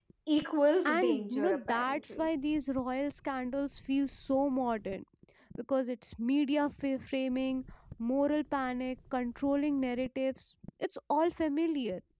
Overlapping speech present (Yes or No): Yes